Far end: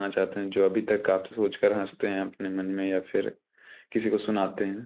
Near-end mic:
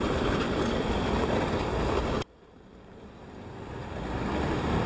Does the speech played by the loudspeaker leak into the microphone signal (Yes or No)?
No